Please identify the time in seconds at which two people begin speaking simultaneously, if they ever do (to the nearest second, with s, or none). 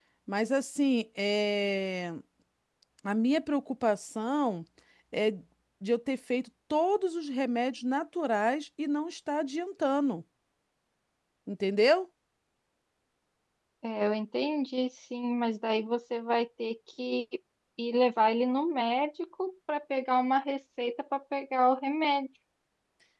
none